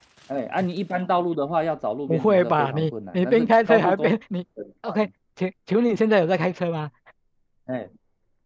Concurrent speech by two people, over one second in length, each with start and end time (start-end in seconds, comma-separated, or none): 2.1-4.2